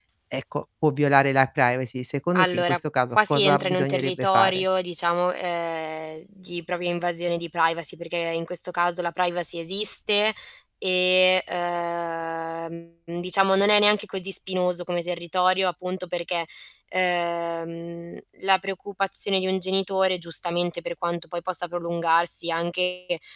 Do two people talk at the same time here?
Yes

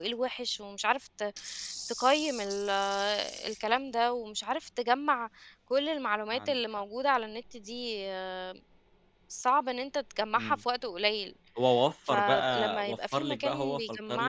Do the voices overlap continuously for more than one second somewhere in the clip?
Yes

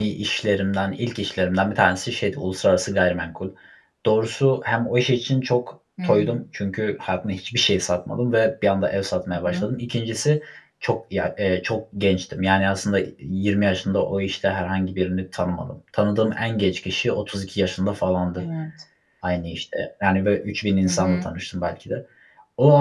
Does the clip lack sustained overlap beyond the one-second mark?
Yes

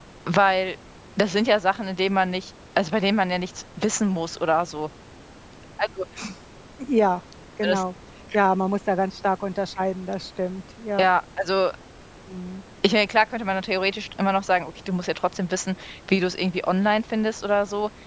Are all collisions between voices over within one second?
Yes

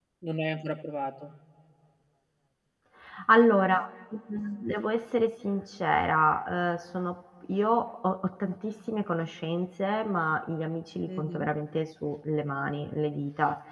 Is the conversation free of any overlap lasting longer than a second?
Yes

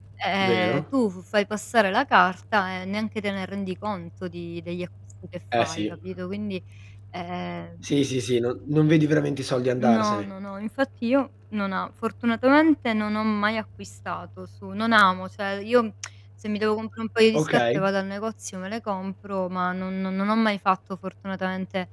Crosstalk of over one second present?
No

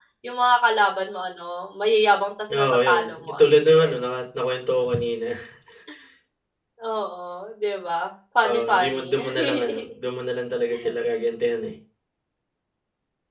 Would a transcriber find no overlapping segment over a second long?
No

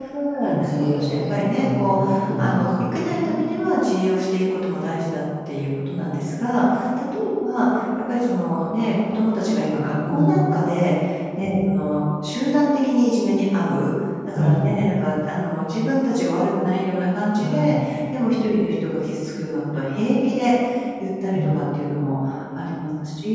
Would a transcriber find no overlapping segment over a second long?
No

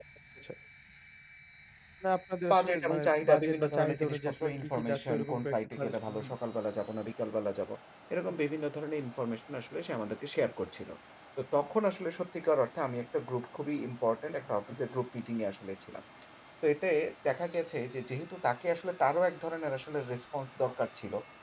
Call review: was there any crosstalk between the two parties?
Yes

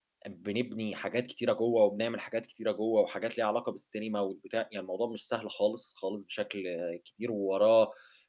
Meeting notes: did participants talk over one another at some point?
No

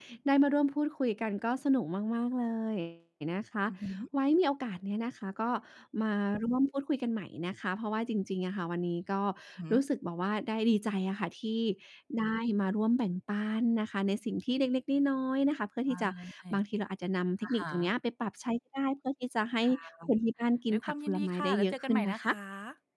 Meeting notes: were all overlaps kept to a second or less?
No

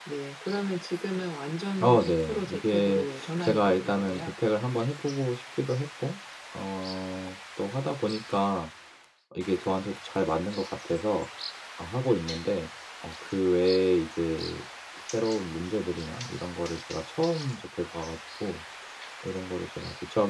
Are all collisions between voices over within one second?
No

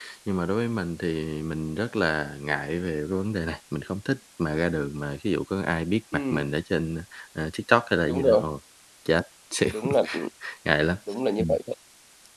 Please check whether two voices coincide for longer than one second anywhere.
No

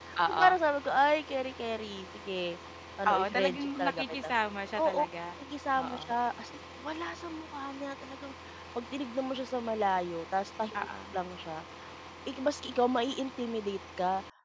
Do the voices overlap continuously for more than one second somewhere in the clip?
Yes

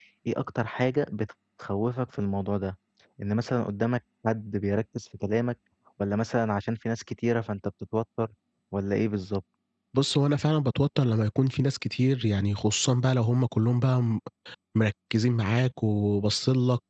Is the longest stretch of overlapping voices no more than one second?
Yes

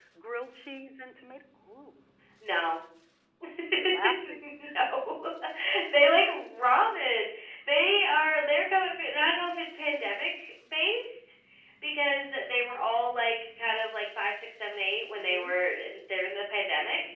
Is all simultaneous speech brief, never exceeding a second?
Yes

